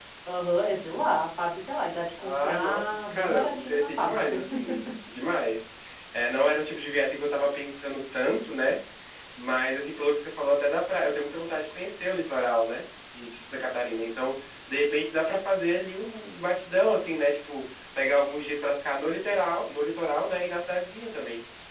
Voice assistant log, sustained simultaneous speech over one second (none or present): present